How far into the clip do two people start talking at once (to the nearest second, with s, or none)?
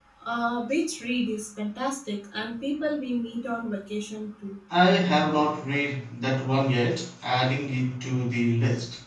none